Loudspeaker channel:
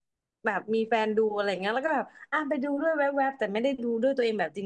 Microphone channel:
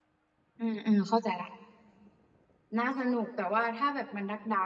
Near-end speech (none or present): present